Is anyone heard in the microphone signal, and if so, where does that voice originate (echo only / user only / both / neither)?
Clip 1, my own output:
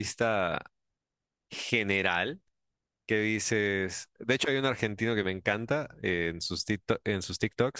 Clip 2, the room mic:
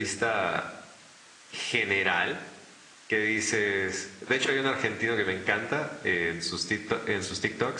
echo only